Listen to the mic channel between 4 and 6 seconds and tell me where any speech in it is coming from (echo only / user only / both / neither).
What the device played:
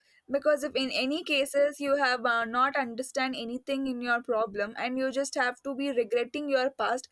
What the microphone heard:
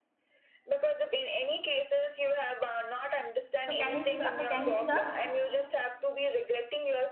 both